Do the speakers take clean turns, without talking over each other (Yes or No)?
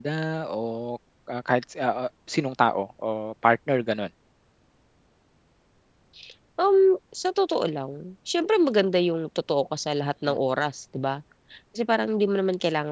Yes